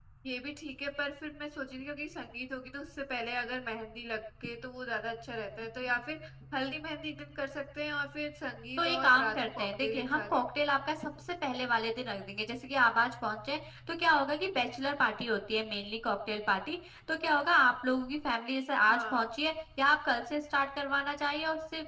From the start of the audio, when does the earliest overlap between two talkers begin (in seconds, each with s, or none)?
8.8 s